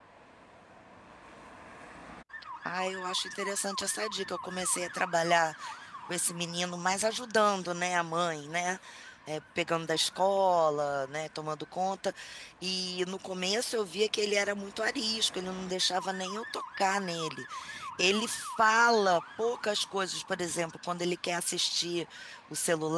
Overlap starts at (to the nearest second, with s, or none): none